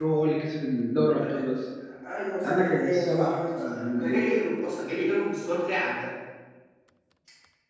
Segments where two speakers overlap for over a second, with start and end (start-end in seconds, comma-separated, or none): 2.4-4.2